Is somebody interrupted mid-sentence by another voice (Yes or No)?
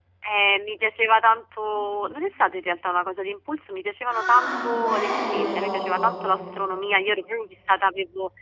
Yes